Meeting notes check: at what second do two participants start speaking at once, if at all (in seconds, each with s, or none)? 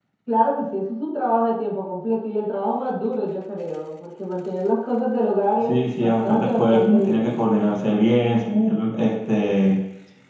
5.6 s